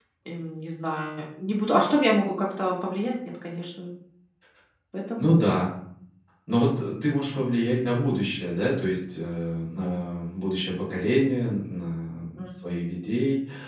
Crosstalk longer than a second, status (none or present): none